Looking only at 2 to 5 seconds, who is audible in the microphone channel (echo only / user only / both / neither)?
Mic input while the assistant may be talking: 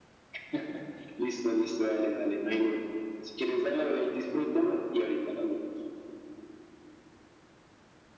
echo only